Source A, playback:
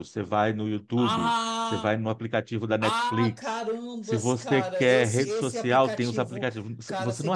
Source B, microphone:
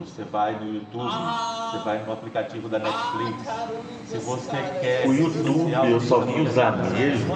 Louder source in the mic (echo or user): user